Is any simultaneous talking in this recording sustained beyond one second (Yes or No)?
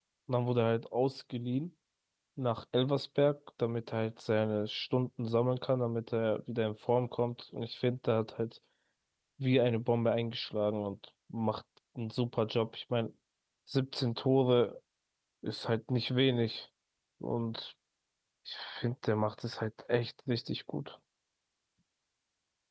No